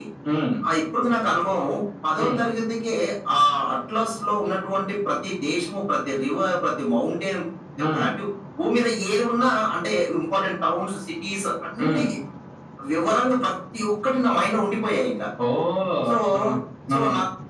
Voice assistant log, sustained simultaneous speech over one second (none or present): none